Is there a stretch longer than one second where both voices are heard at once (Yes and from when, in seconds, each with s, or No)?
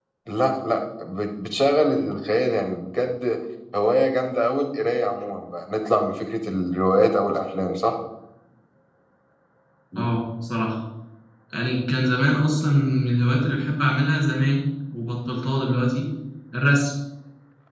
No